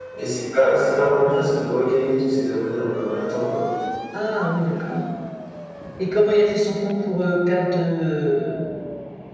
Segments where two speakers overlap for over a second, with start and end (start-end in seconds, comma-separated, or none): none